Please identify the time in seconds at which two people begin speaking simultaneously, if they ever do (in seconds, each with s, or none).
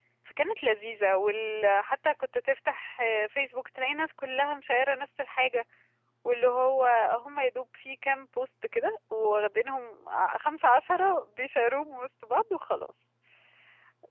none